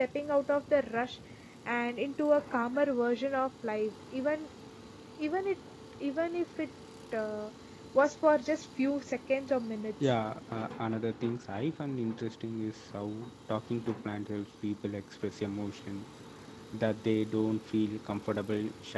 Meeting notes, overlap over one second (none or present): none